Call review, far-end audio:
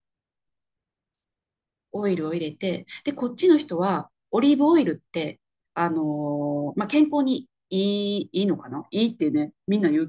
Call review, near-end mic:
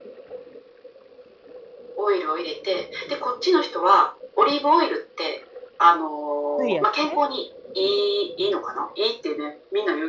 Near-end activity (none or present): present